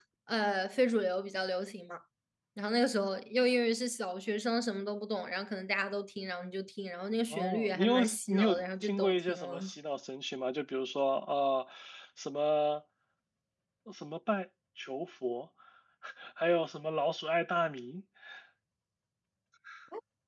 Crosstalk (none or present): present